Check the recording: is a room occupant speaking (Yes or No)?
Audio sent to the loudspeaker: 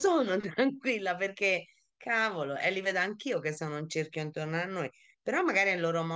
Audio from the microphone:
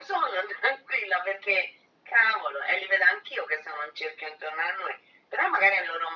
No